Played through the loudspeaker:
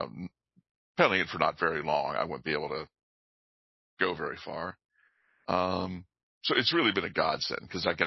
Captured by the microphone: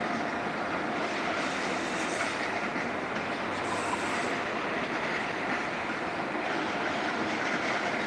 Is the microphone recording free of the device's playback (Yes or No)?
Yes